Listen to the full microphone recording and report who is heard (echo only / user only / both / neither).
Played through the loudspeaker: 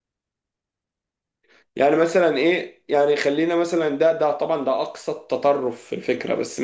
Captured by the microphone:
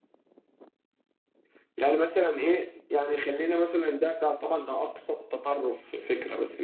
echo only